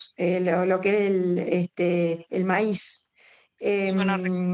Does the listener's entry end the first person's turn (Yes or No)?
No